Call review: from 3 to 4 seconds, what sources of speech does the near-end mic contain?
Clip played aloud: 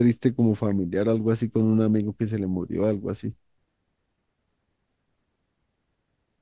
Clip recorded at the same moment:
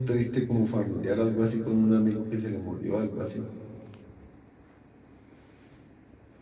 echo only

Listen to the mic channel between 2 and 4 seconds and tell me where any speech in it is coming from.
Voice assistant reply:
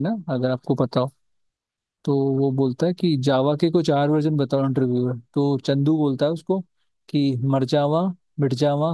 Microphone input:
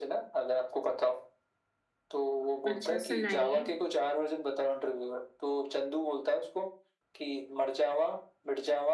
both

